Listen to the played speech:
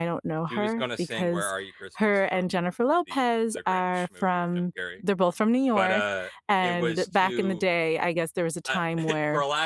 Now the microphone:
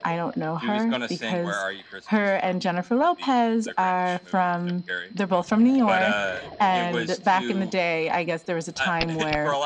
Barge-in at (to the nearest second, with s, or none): none